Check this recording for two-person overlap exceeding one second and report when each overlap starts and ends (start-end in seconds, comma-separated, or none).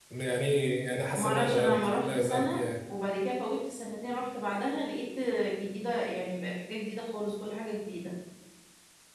1.2-2.6